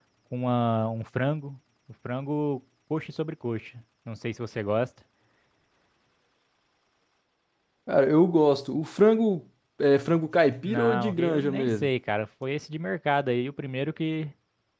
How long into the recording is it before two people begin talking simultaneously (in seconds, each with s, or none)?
10.6 s